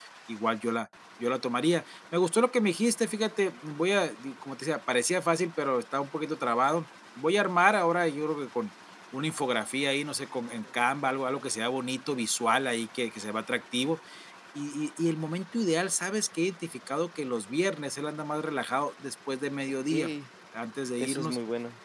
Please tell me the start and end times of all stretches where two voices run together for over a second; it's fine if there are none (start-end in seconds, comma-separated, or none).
none